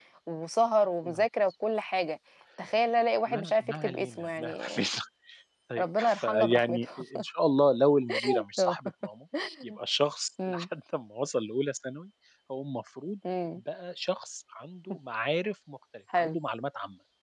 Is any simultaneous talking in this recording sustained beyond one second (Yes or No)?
Yes